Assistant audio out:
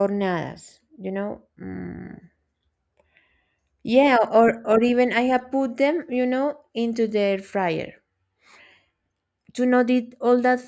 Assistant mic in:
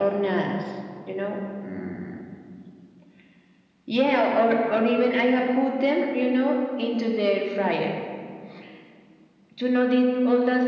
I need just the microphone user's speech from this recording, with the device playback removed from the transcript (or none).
none